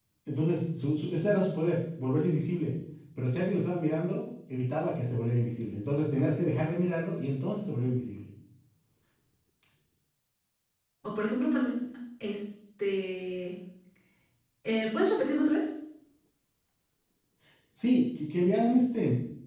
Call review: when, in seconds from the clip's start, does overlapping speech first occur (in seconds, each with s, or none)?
none